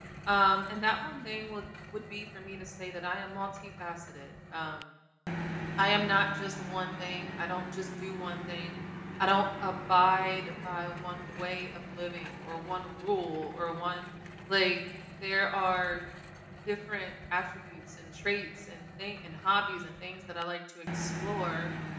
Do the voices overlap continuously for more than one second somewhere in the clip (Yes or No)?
No